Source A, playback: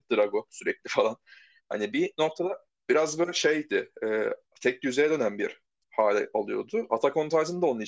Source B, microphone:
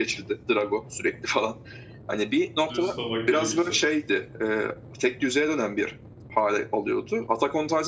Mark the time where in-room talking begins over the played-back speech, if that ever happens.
2.7 s

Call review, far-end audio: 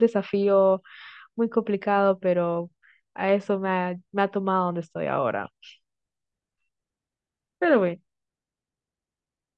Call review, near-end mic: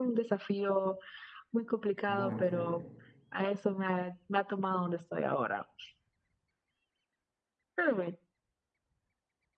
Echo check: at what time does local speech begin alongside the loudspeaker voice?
2.1 s

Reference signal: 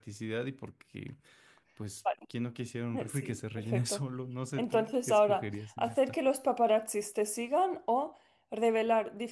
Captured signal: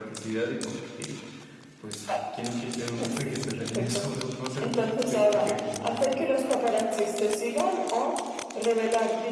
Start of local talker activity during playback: none

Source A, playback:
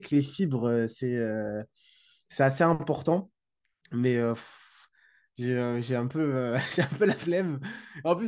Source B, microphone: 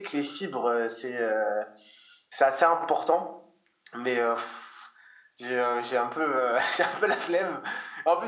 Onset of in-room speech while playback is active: none

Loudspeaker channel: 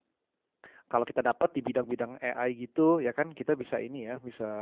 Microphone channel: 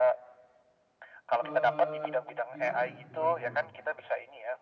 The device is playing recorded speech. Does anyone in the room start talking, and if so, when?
1.4 s

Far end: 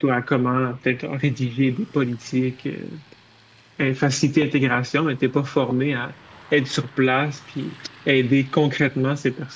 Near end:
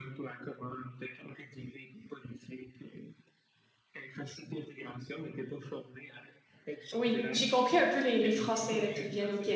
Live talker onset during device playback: 6.9 s

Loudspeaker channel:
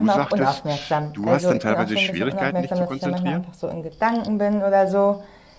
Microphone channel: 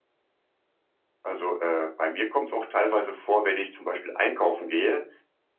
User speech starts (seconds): 1.2 s

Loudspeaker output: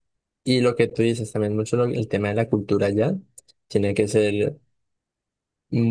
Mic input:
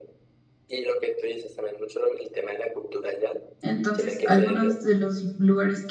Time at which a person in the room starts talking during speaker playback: 3.6 s

